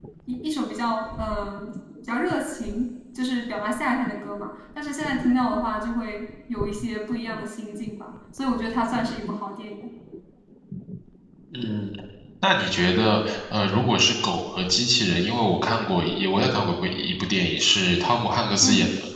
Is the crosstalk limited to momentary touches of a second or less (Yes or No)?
Yes